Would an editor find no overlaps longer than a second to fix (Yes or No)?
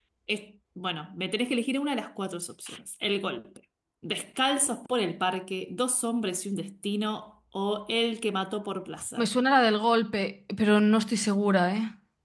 Yes